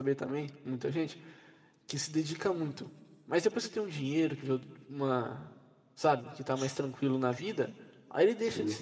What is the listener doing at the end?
listening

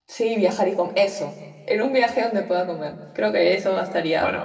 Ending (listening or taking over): taking over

